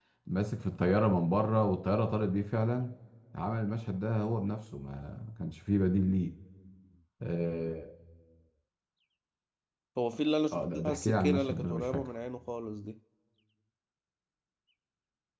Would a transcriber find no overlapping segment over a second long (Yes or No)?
No